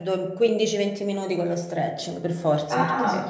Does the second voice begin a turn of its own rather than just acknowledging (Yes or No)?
Yes